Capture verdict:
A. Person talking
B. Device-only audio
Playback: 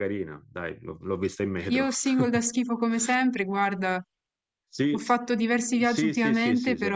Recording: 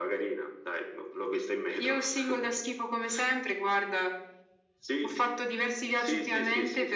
B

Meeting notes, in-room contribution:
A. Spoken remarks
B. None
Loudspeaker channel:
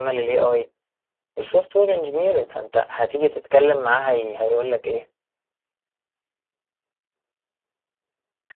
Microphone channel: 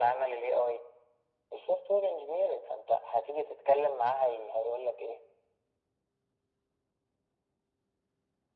B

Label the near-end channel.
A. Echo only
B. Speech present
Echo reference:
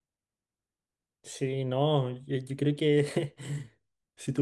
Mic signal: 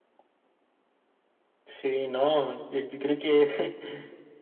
A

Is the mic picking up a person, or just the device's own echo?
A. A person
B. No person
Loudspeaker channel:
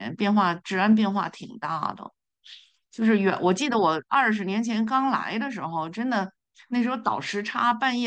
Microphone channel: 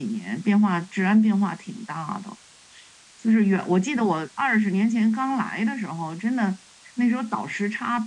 B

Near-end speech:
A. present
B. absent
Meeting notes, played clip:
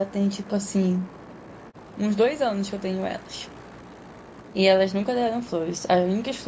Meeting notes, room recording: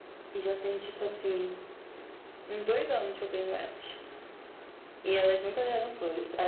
B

